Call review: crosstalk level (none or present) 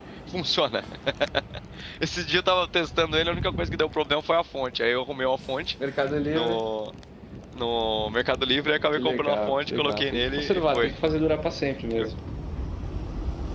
present